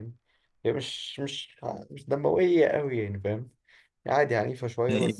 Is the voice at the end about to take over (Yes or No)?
Yes